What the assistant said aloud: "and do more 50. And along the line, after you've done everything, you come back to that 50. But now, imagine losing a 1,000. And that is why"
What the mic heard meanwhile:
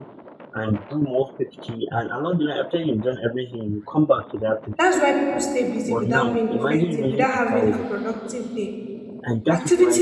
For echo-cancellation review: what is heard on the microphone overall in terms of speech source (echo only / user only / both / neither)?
both